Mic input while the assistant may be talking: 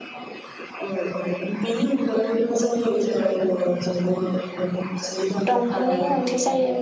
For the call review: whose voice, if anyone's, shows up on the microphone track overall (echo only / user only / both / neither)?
both